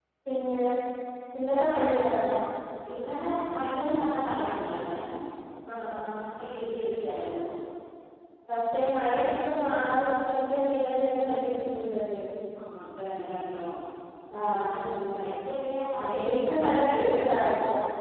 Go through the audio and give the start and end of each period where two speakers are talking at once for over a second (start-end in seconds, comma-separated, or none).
16.0-17.4